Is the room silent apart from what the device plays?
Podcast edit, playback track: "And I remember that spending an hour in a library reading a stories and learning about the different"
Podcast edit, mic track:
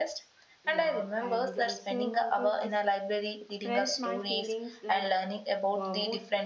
No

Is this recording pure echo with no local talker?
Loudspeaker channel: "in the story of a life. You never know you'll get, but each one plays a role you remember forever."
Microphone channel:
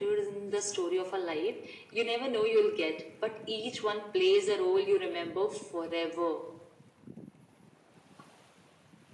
Yes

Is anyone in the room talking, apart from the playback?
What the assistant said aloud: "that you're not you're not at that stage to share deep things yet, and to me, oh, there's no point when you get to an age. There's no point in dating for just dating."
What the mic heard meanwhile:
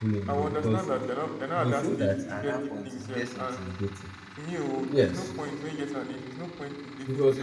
Yes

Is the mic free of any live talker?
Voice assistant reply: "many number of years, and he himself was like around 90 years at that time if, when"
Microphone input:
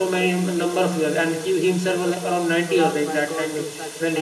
No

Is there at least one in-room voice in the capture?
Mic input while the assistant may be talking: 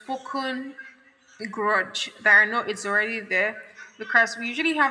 No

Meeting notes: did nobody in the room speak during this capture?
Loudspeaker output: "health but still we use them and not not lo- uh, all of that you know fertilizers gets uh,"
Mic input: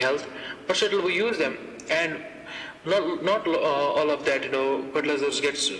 Yes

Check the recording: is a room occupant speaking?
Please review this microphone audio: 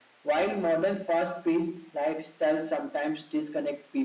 No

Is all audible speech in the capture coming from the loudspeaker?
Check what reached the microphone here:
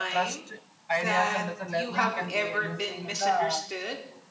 No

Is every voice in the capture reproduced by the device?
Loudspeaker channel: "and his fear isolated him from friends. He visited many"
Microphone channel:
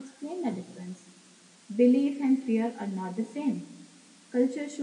No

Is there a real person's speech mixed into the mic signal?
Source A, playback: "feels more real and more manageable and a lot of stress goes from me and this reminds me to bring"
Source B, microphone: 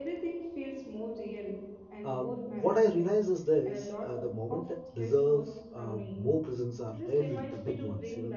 Yes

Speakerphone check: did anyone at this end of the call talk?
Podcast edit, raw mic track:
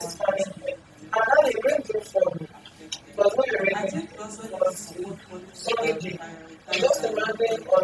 Yes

